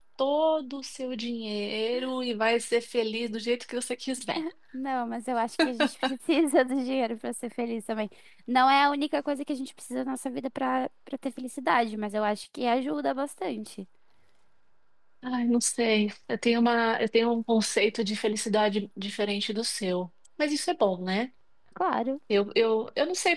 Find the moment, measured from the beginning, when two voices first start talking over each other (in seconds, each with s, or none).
none